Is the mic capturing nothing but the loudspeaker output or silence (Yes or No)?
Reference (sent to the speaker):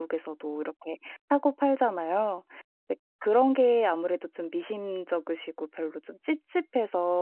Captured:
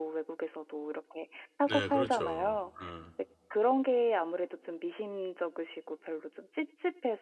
No